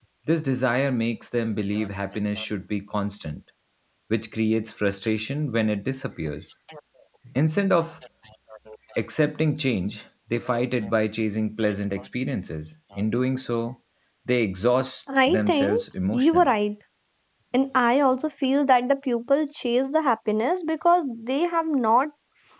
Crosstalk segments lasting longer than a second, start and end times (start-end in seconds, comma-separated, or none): 15.3-16.5